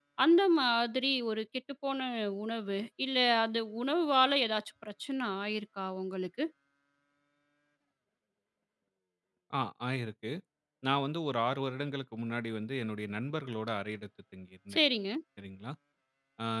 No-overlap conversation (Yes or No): Yes